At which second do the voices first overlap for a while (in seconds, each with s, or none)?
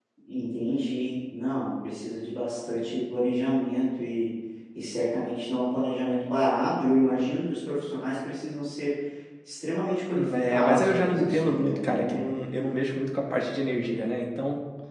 10.2 s